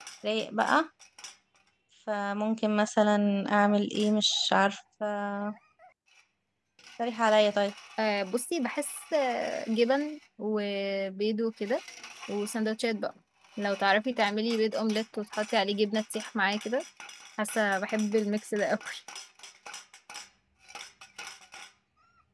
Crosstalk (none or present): none